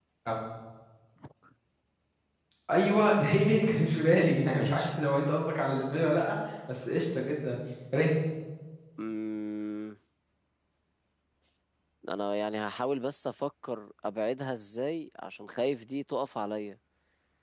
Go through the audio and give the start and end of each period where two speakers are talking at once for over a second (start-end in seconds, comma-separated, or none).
none